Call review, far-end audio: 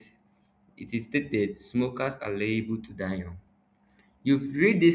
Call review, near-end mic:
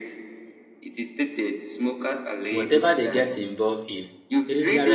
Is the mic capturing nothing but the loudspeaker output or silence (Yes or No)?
No